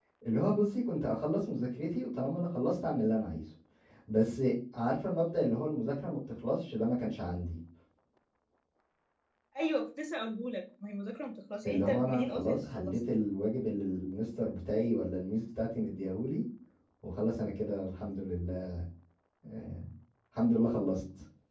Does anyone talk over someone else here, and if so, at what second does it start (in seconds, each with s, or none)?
11.6 s